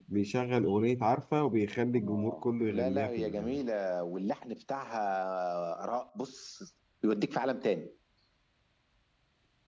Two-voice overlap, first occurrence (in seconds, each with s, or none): 1.9 s